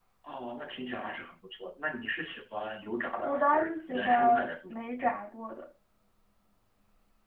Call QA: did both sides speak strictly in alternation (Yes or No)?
No